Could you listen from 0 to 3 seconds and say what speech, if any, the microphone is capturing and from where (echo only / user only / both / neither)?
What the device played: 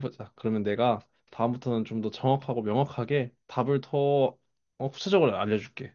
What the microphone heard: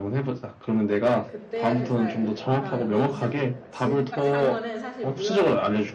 both